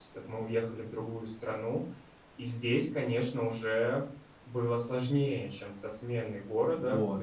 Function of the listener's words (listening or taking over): taking over